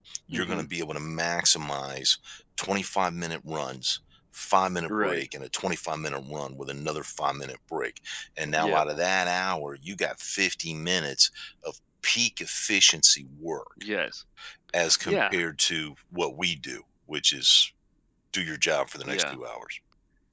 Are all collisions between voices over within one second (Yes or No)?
Yes